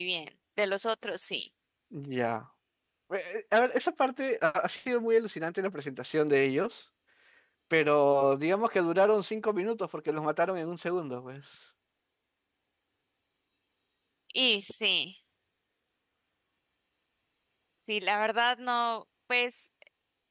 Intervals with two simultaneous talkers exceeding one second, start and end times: none

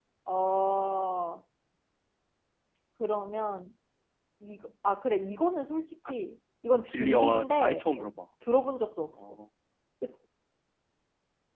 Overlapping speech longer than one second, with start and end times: 6.9-8.1

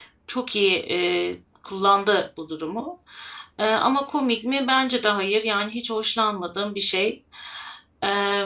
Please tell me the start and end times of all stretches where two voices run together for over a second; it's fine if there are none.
none

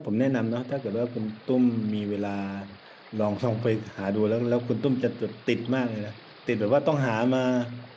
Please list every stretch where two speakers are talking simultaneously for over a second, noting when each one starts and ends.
none

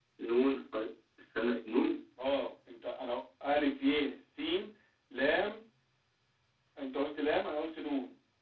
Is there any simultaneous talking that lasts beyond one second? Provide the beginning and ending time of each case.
none

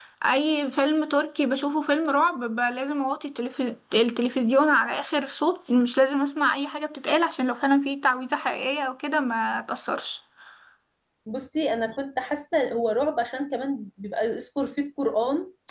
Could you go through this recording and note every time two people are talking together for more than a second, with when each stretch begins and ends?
none

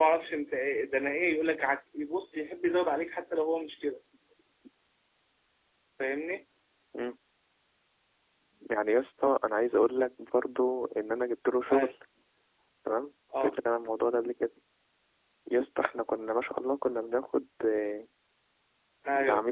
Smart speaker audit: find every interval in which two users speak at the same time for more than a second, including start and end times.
none

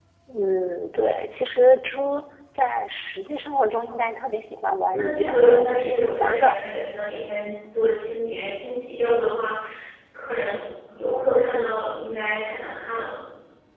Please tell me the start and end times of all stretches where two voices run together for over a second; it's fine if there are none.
4.9-6.6

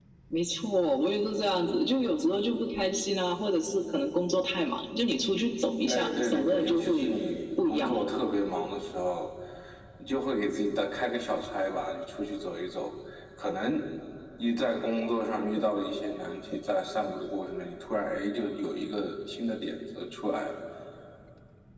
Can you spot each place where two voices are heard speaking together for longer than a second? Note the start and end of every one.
5.9-7.1

